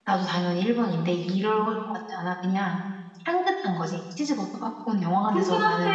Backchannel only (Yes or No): No